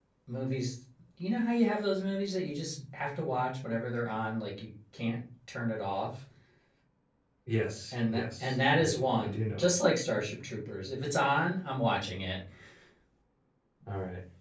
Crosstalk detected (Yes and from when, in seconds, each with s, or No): Yes, from 7.9 s